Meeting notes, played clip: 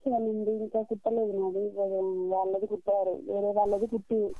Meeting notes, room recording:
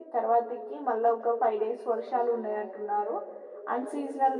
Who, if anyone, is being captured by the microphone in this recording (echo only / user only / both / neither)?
both